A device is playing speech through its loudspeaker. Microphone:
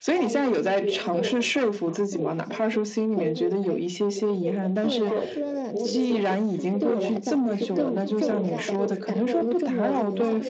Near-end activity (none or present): present